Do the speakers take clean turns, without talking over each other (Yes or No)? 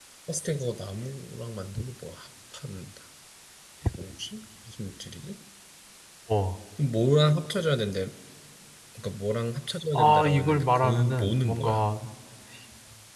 No